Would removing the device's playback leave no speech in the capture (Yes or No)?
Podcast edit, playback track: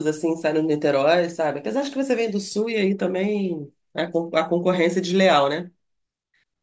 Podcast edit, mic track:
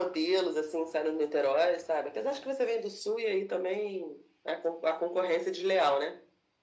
Yes